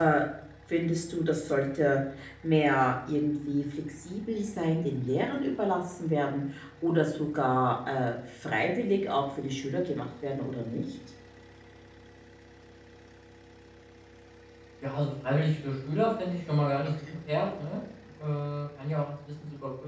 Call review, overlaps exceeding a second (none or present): none